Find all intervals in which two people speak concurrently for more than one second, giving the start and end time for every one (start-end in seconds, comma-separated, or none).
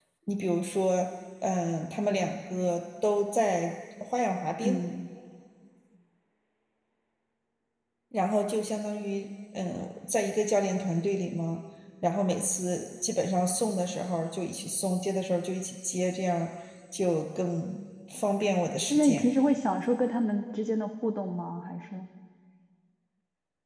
none